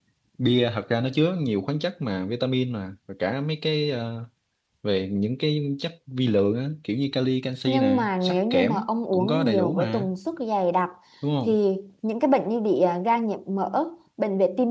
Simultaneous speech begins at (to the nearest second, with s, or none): 8 s